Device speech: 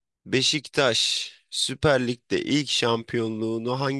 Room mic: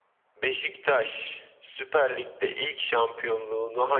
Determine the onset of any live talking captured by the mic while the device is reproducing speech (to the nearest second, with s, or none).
none